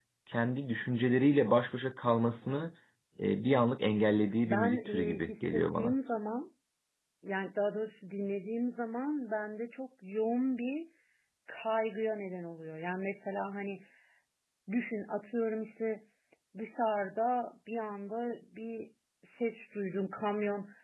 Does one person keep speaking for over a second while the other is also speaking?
Yes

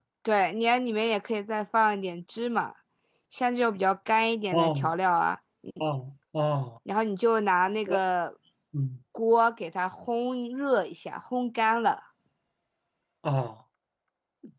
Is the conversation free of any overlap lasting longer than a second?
Yes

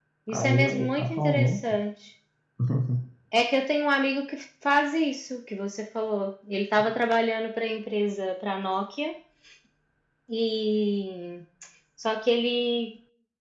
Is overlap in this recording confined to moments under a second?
No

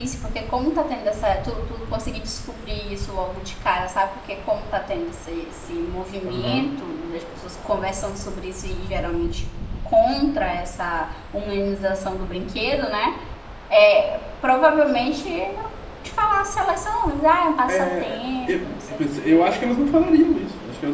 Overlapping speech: Yes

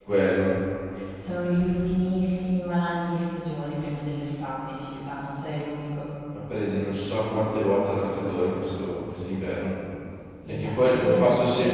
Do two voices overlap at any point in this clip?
Yes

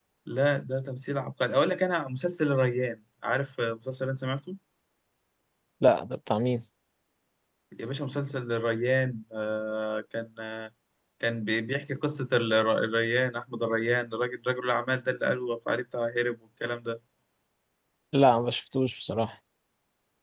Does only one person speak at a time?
Yes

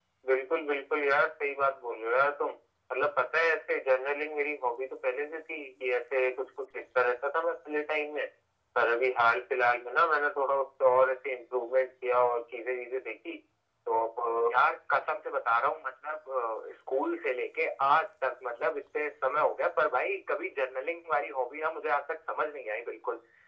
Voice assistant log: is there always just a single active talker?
Yes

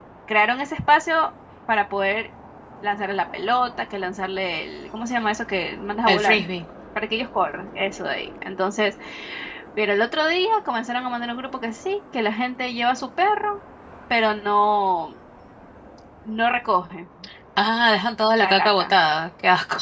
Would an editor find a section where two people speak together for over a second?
No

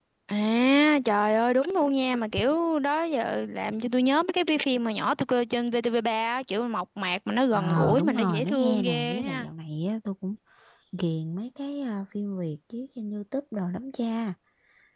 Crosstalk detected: Yes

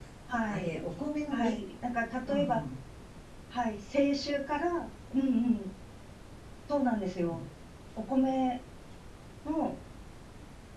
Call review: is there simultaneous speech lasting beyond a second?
No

